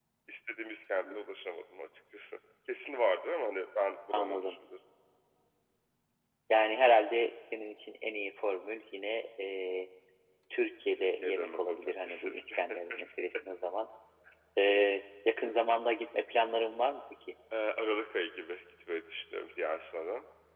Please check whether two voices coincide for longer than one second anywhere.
Yes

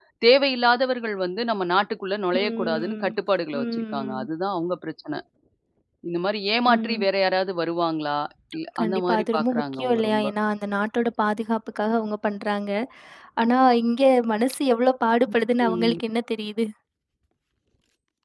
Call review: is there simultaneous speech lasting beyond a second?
Yes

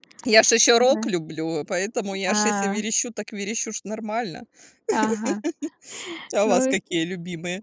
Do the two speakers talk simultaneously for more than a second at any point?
No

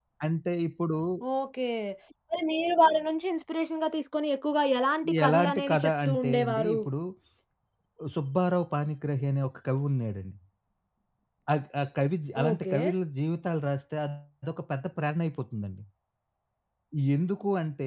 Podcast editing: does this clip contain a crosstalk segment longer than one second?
Yes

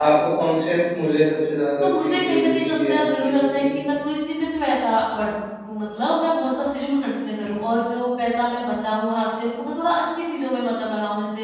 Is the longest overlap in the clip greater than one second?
Yes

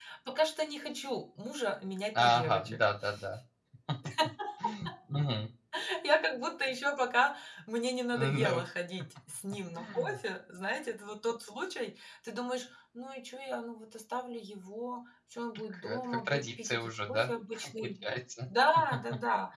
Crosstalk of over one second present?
Yes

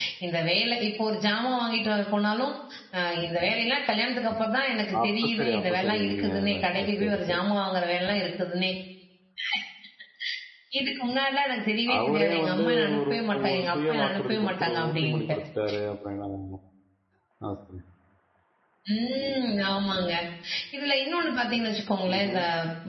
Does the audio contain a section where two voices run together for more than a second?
Yes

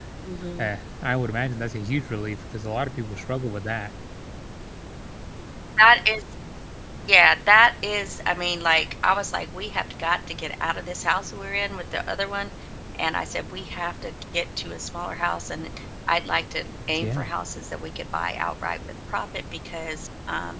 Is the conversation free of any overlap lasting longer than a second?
Yes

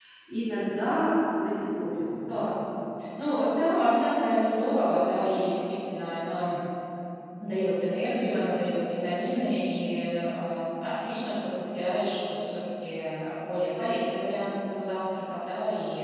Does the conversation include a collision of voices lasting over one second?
No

